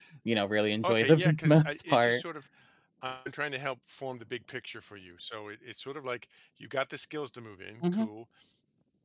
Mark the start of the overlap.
0.8 s

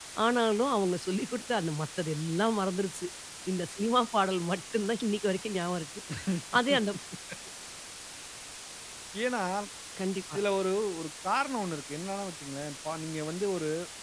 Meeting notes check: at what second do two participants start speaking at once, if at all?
none

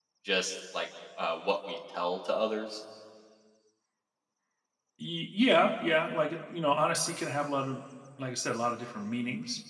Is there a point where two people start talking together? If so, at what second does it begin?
none

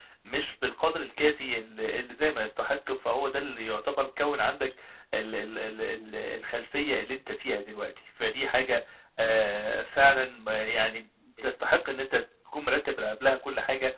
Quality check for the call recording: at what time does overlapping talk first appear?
none

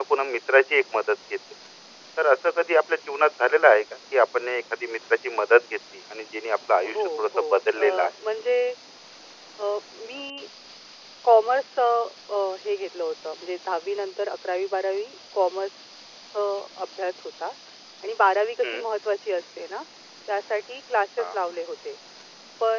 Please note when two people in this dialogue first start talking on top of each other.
6.8 s

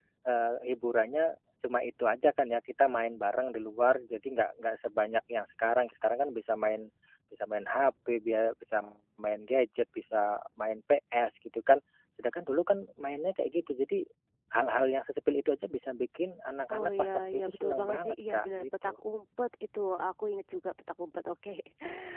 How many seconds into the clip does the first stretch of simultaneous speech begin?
16.7 s

